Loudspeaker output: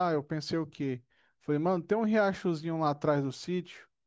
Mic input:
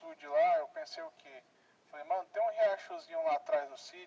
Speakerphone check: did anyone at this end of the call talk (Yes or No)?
No